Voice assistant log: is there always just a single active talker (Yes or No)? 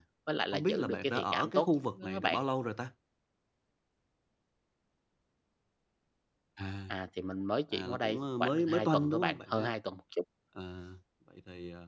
No